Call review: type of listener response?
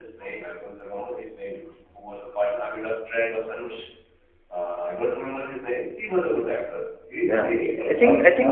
taking over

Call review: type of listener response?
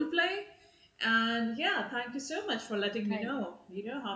listening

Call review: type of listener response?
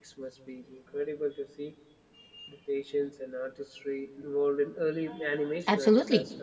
taking over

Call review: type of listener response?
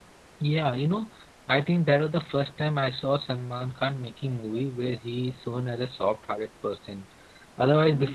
listening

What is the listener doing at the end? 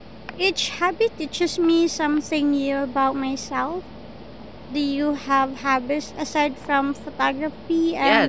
taking over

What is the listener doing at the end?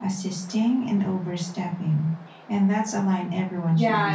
taking over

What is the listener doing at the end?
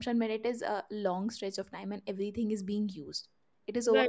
listening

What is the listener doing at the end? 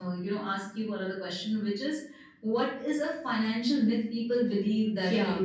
taking over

